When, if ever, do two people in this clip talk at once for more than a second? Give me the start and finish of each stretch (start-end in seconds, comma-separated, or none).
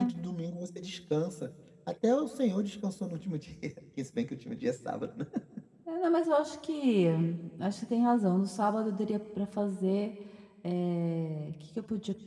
none